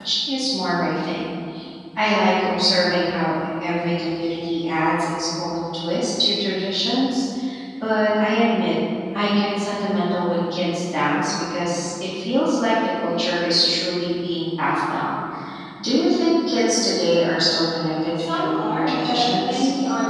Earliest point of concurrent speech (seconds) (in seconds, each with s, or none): 18.2 s